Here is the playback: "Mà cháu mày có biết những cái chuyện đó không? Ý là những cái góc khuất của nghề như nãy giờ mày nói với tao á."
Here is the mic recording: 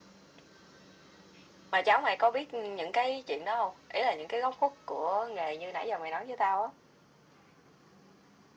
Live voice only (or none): none